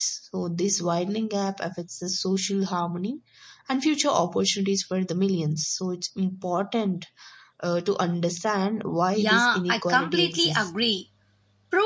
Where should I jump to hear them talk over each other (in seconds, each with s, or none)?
9.2 s